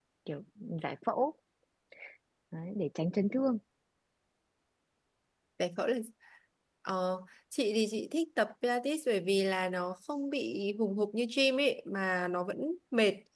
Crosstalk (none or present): none